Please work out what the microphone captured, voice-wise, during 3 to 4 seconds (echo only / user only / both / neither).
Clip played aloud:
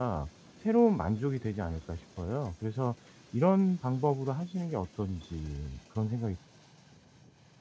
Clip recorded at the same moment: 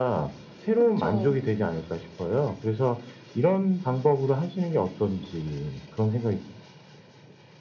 echo only